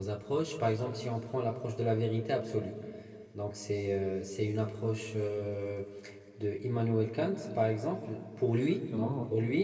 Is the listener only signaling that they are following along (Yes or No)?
Yes